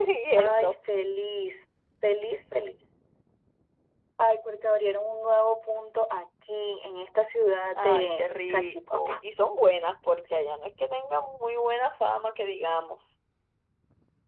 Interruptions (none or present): present